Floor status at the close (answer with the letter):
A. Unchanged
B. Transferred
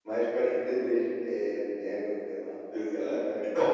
B